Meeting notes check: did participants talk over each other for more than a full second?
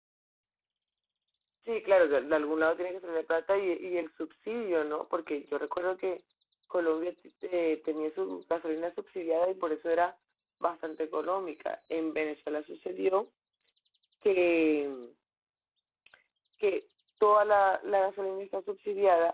No

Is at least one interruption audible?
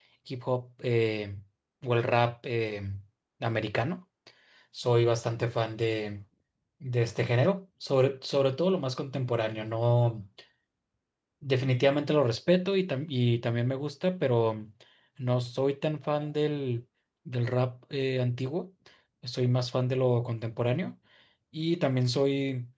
No

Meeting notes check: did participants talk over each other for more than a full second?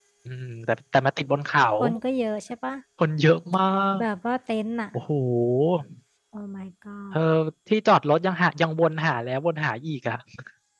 No

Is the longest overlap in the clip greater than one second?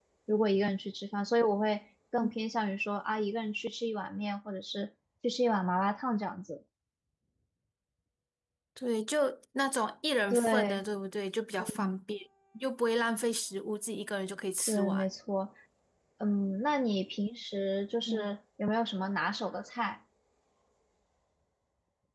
No

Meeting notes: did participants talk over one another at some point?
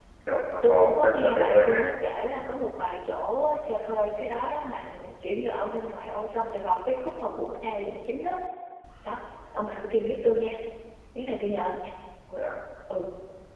Yes, from 0.6 s

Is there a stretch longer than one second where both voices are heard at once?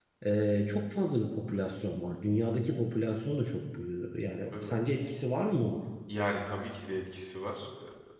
No

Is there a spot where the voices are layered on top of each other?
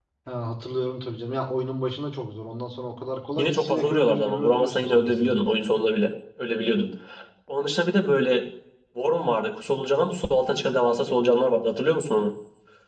Yes, from 3.4 s

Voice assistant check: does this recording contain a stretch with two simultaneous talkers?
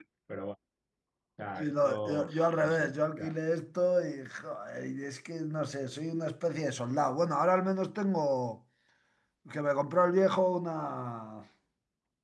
Yes, from 1.5 s

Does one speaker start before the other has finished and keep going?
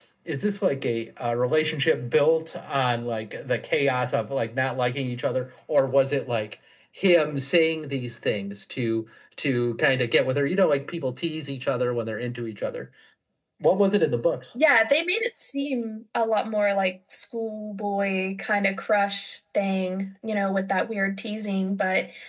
No

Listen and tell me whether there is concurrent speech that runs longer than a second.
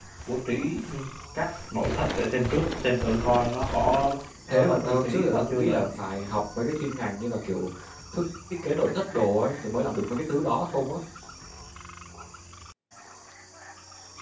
Yes, from 4.5 s

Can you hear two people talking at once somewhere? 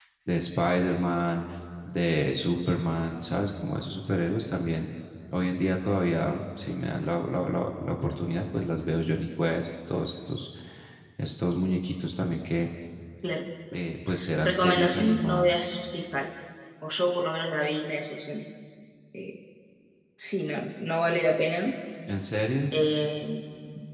Yes, from 14.4 s

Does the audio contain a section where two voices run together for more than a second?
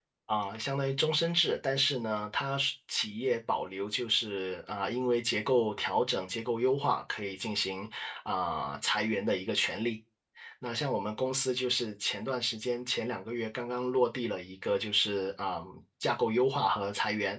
No

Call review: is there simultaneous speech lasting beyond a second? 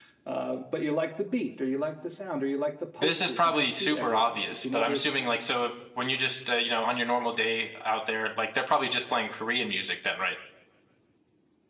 Yes, from 3.0 s

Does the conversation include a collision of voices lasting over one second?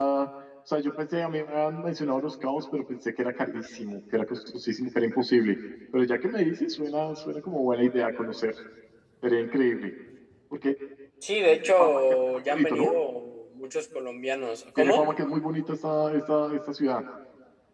Yes, from 11.6 s

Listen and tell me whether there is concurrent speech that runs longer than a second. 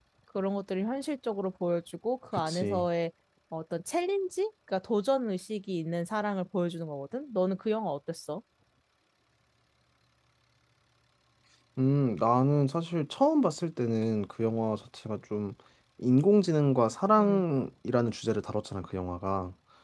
No

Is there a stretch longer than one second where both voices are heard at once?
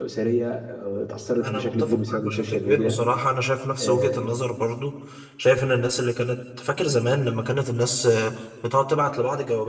Yes, from 1.4 s

